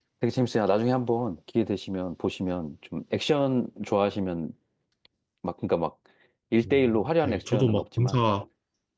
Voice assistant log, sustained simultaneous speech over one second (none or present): present